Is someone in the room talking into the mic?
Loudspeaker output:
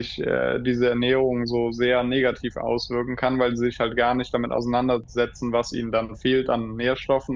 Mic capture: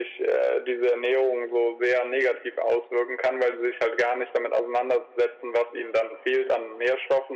No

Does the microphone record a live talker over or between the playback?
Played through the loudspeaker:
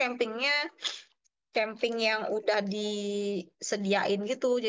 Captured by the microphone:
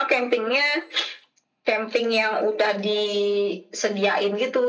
No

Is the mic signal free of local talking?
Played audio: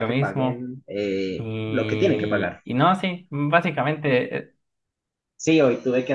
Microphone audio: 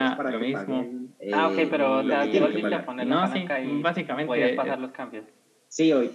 No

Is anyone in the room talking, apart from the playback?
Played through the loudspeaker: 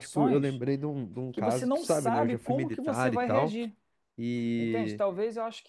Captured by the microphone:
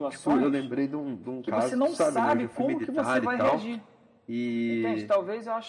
No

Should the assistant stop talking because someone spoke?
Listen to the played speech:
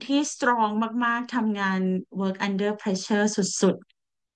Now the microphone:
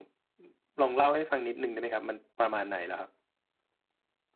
Yes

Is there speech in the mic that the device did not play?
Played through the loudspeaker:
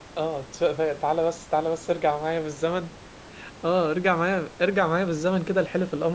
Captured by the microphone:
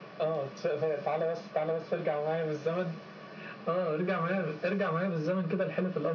Yes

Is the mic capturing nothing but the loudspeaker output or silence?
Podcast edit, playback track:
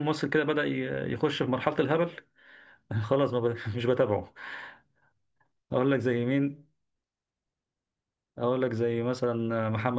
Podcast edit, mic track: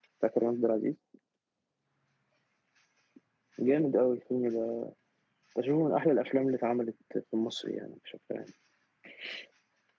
No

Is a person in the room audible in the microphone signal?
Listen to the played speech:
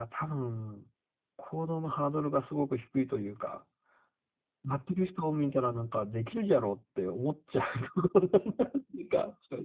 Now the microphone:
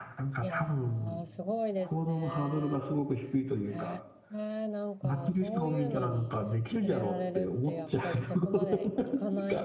Yes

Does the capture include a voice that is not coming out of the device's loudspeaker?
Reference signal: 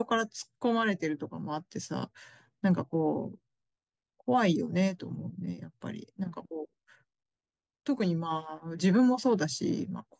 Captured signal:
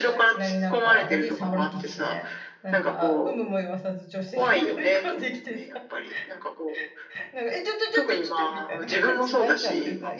Yes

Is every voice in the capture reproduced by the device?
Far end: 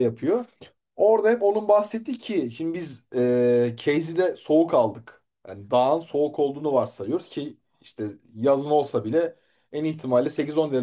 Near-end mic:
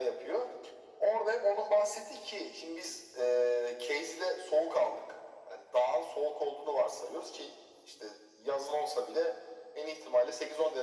Yes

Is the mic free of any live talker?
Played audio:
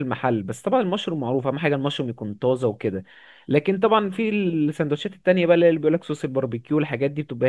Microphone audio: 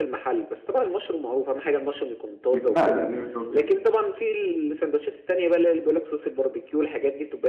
No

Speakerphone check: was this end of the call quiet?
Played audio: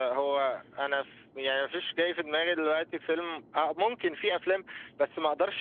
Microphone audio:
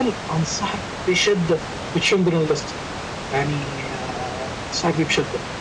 No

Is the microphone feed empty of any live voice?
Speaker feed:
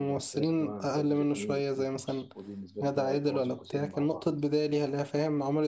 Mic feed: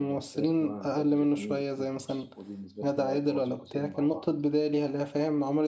Yes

